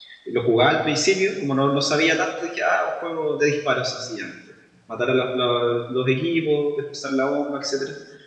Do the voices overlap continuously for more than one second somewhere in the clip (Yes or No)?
No